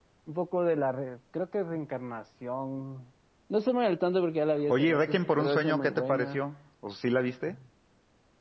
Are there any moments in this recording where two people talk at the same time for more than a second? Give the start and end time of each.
4.7-6.4

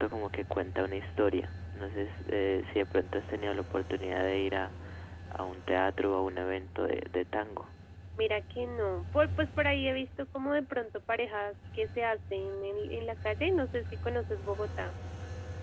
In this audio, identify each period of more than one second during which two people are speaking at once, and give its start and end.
none

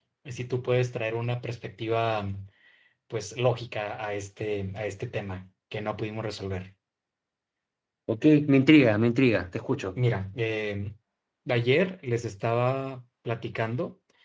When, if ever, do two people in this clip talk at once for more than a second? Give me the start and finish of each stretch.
none

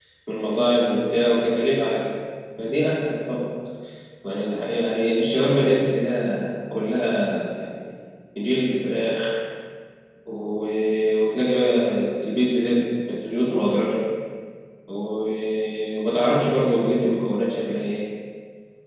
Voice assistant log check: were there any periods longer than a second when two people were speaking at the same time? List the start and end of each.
none

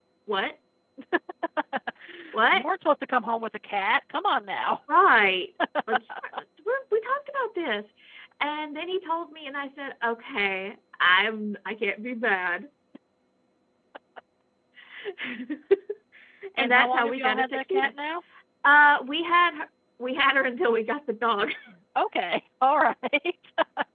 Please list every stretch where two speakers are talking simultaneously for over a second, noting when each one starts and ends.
16.6-17.9

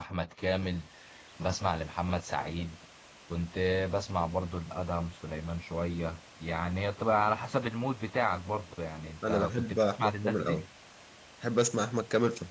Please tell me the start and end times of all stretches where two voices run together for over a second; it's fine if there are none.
9.3-10.6

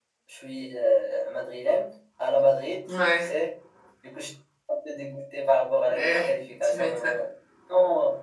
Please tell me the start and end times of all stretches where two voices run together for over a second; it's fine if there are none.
5.9-7.2

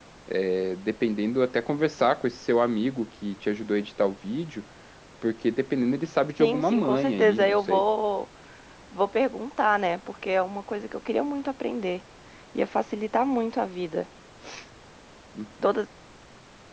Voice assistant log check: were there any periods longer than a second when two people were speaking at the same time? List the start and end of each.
6.4-7.8

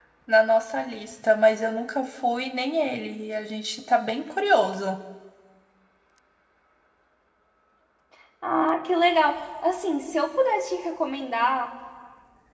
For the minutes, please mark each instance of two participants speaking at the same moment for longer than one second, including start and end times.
none

